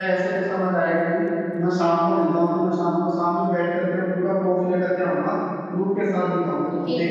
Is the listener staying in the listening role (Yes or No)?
No